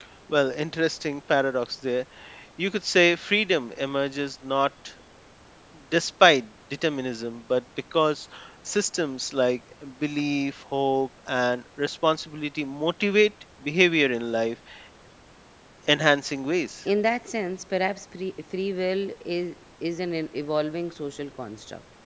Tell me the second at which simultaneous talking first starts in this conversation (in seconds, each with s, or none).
none